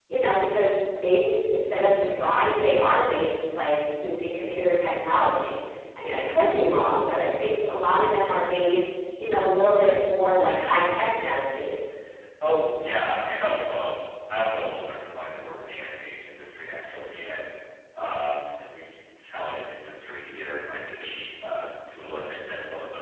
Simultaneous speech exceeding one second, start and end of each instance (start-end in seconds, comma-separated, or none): none